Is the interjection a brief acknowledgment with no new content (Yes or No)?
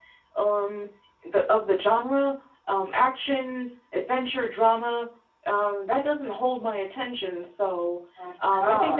Yes